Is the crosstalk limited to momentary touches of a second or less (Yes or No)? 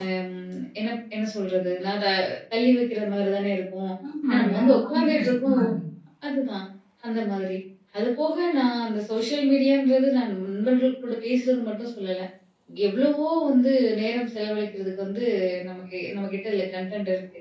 No